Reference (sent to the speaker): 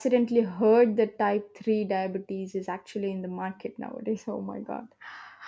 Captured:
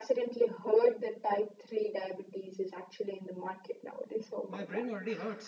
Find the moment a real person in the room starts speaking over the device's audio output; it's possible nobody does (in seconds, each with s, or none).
4.5 s